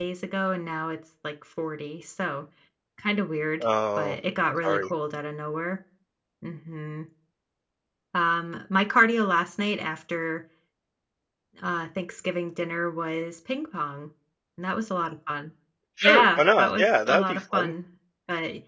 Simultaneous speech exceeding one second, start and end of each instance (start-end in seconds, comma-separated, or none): 16.0-17.7